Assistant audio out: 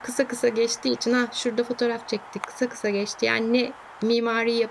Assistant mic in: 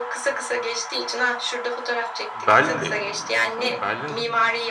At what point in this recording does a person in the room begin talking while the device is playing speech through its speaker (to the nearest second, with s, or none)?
2 s